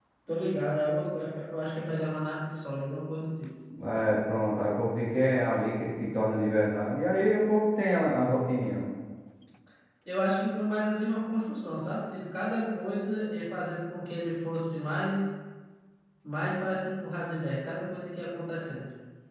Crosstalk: none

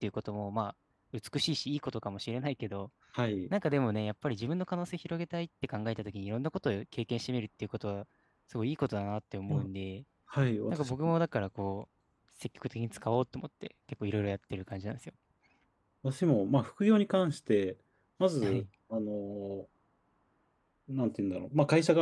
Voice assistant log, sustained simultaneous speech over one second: none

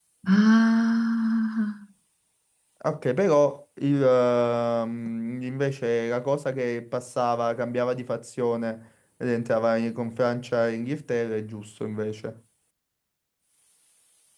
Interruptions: none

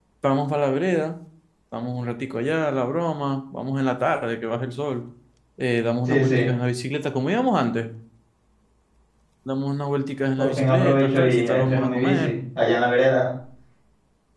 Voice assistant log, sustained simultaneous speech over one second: present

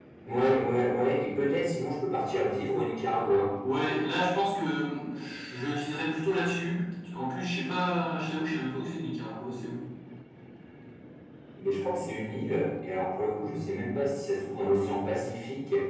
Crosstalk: none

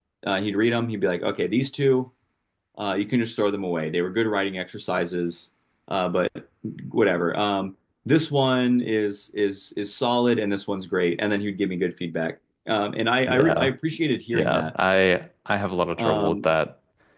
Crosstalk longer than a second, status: none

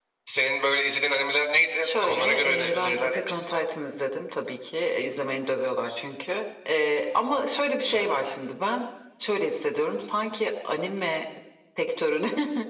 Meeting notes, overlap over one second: present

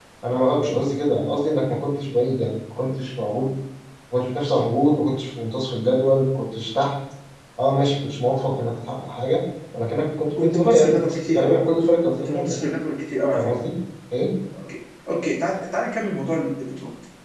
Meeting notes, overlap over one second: present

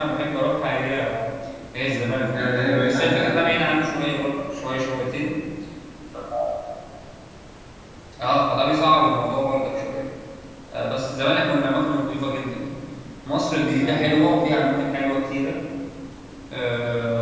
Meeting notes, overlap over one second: present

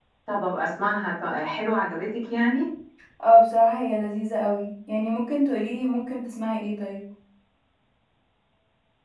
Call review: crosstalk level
none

